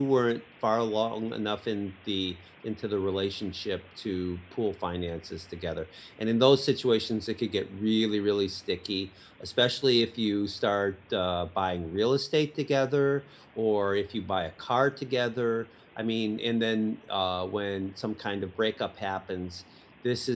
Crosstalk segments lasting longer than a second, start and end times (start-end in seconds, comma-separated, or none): none